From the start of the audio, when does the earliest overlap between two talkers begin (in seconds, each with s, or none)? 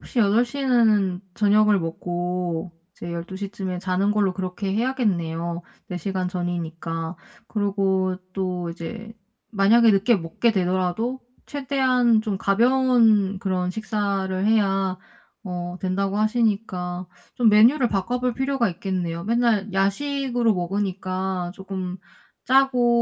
none